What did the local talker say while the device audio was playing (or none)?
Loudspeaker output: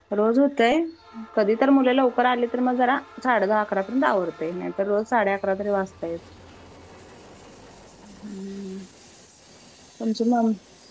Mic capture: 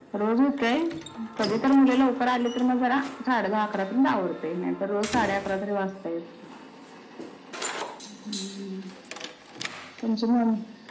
none